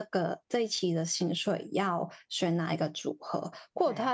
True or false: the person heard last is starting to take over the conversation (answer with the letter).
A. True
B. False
B